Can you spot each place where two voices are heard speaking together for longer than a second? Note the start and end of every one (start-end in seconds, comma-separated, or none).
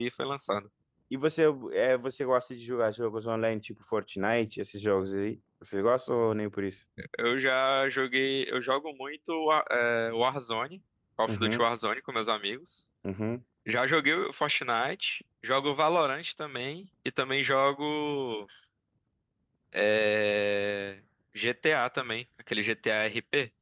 none